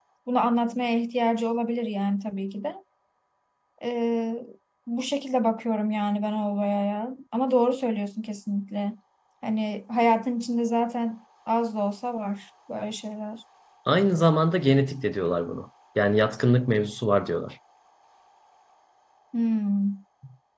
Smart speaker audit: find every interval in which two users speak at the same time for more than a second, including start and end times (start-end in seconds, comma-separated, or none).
none